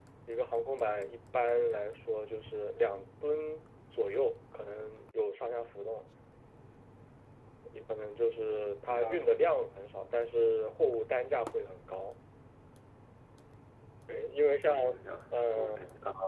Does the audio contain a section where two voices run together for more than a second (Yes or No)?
No